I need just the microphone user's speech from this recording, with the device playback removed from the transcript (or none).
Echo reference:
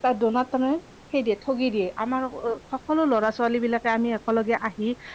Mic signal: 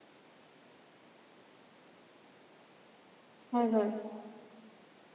হয় হয়।